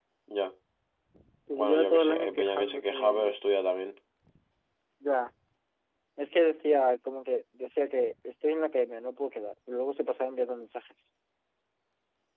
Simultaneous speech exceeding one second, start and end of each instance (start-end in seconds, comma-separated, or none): 1.5-3.3